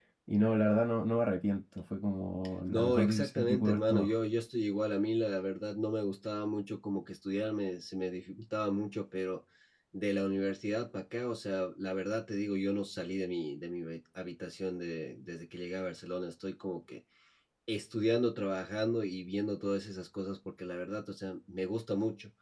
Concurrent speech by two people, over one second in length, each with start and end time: 2.7-4.1

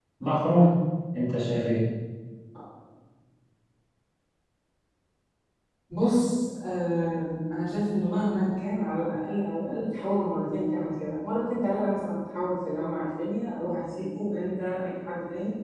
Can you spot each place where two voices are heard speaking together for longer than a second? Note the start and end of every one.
none

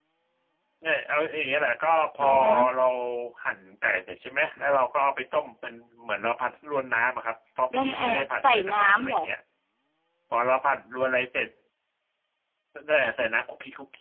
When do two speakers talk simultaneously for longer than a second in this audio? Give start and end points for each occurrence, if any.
7.8-9.2

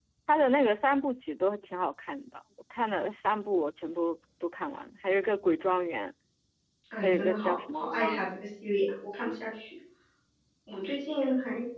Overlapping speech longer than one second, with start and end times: 7.0-8.2

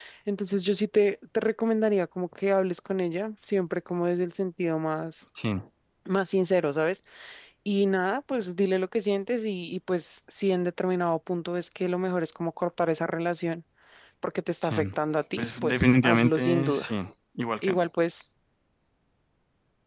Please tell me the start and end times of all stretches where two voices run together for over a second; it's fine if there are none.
15.4-16.9

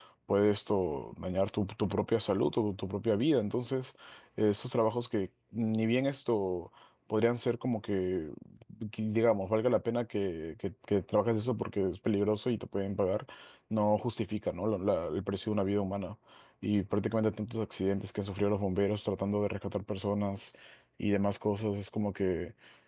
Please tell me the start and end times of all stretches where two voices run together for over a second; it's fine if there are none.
none

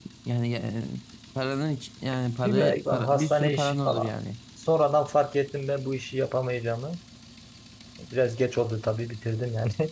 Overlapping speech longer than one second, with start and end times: 2.4-4.1

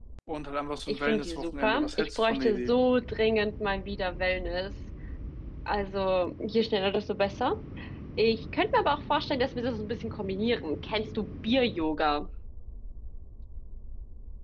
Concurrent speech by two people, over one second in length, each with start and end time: 0.9-2.7

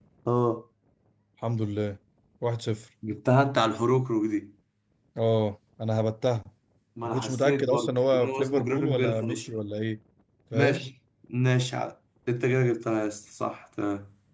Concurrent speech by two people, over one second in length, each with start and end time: 7.0-9.4

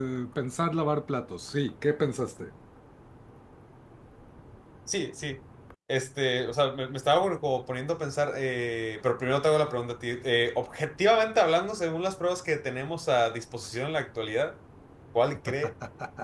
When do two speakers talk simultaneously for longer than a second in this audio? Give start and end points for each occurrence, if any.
none

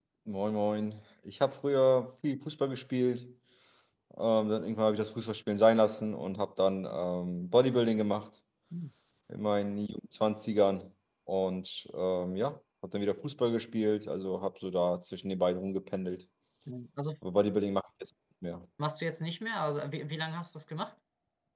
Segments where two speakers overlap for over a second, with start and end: none

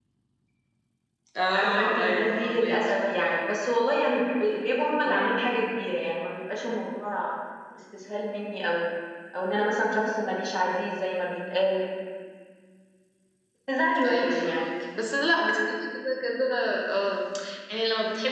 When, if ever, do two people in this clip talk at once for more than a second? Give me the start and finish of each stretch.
1.6-2.8

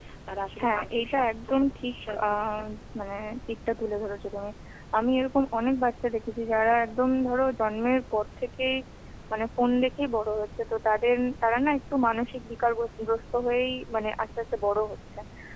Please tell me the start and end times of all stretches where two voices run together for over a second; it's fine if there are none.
0.6-2.6

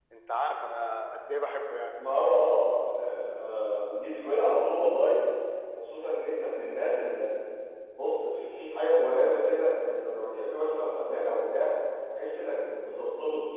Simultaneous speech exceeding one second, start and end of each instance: none

